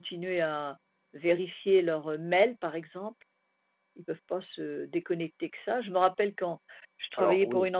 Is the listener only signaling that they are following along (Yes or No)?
Yes